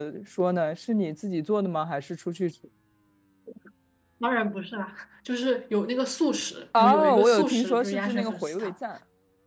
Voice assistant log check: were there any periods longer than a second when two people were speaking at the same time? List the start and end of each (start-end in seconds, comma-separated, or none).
6.8-8.7